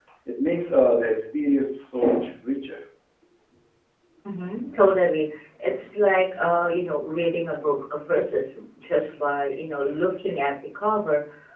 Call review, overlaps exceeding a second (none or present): none